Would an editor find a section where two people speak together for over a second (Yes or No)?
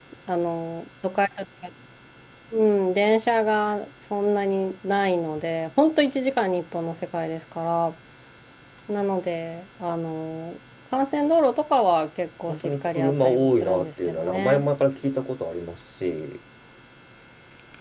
Yes